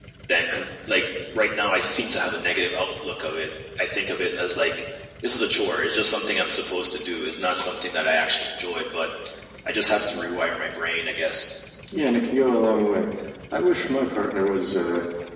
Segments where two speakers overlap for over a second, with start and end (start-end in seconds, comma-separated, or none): none